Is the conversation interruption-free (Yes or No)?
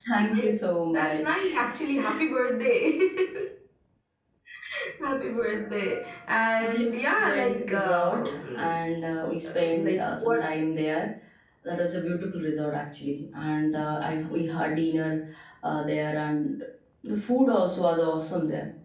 No